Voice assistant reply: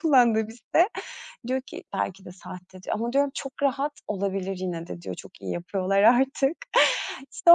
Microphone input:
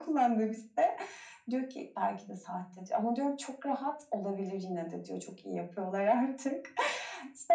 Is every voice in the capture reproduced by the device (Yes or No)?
Yes